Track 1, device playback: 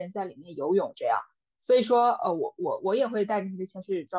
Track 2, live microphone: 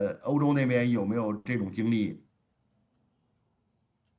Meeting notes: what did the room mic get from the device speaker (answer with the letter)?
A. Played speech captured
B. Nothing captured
B